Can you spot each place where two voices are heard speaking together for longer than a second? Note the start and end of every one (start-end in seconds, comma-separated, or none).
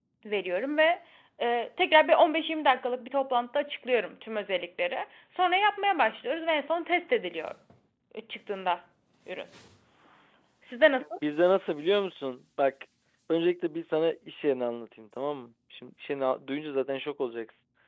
none